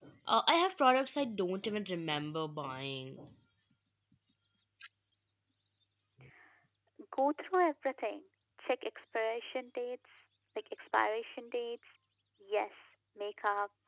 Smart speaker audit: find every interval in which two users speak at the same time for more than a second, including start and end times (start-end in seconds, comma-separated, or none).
none